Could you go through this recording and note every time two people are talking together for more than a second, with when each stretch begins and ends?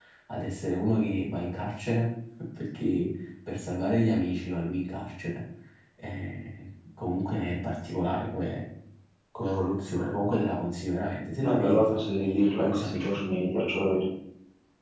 11.4-13.1

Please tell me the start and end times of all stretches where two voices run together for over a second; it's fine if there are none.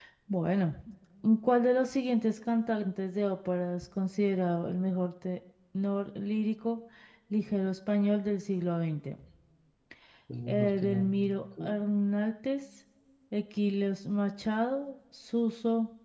10.5-11.8

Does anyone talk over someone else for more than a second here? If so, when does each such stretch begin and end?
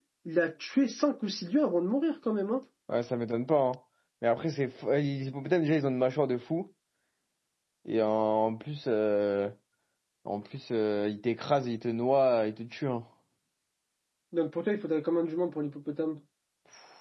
none

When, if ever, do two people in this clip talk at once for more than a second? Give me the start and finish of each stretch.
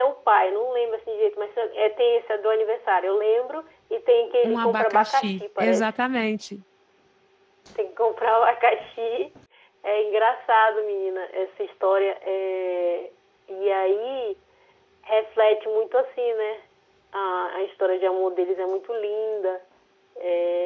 4.4-5.9

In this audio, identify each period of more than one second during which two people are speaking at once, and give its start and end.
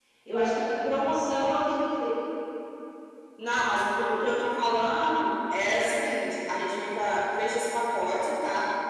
none

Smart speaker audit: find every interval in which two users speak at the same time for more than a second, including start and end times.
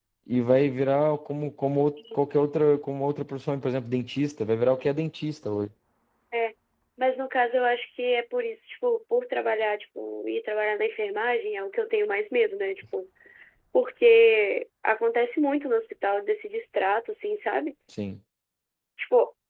none

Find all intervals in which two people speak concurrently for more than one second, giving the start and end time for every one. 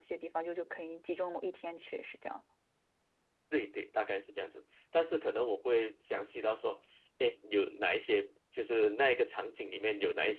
none

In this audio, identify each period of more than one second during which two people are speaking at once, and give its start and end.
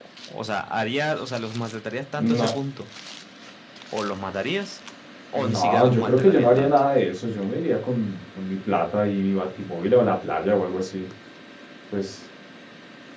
5.4-6.8

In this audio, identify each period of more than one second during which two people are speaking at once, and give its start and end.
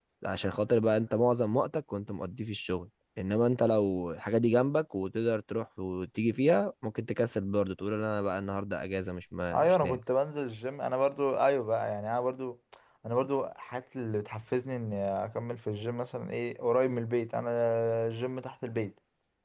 none

